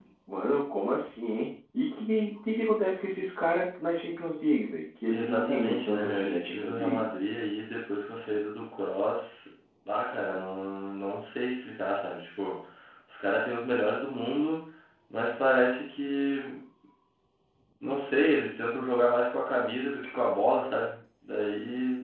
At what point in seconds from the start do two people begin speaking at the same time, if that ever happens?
5.1 s

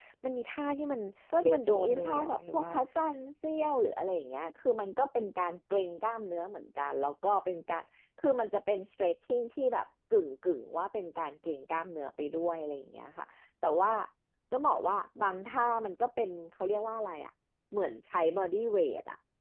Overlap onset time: 1.4 s

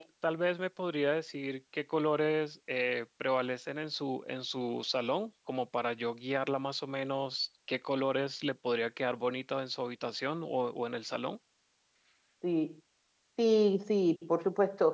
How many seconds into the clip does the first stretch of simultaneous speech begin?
none

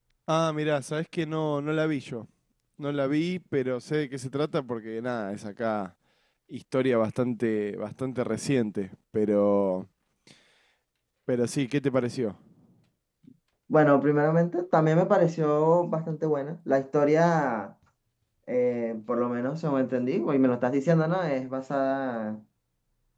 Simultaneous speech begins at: none

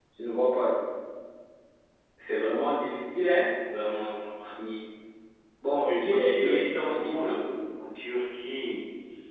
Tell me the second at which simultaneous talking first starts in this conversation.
5.9 s

